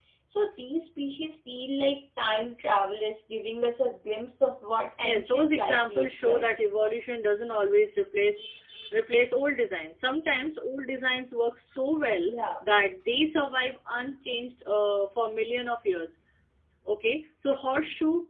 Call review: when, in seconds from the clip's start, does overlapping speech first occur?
5.0 s

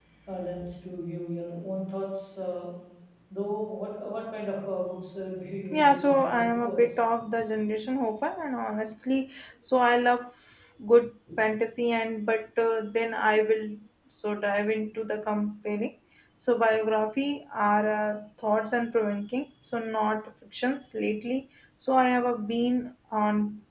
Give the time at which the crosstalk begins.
5.7 s

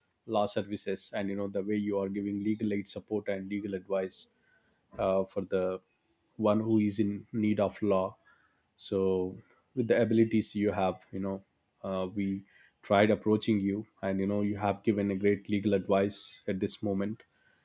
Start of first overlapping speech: none

